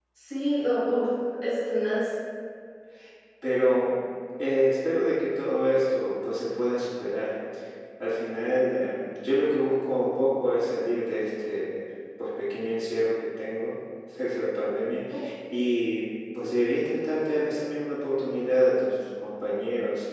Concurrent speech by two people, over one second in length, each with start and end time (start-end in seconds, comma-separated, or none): none